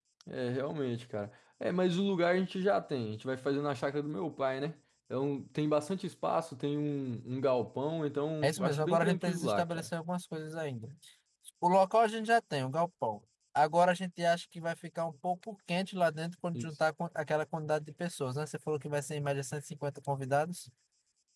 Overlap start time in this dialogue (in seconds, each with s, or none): 8.4 s